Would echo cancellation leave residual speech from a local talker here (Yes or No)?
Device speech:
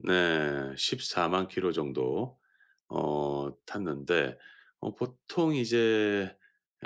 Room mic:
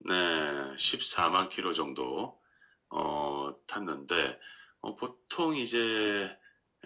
No